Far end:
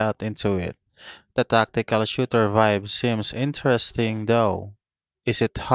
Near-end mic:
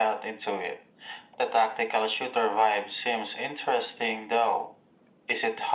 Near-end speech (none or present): none